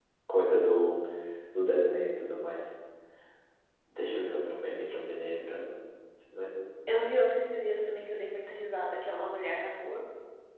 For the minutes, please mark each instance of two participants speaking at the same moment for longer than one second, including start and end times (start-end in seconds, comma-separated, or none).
none